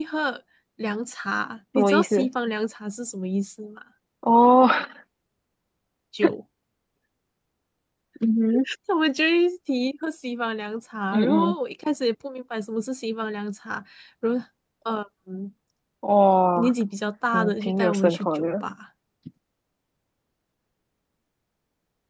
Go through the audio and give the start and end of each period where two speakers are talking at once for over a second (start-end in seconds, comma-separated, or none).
17.3-18.6